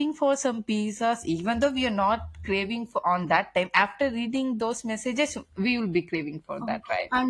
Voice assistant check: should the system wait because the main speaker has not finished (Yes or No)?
No